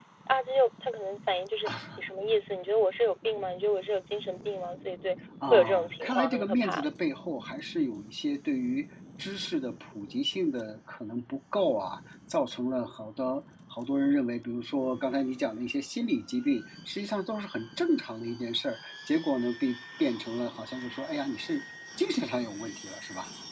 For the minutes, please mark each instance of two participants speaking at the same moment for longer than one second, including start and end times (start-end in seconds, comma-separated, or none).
5.5-6.8